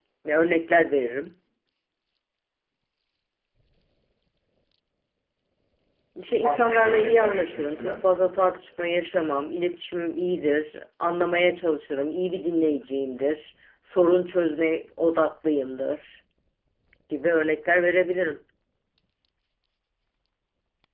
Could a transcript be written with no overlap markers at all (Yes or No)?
No